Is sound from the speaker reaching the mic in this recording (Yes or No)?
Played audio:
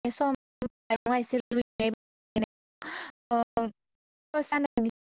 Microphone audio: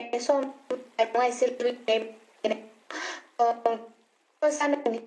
Yes